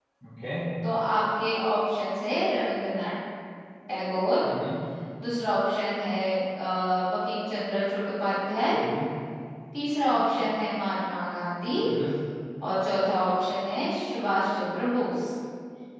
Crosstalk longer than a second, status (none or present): none